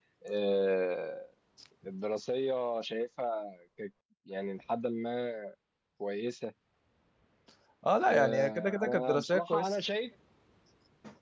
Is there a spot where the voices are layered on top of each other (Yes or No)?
Yes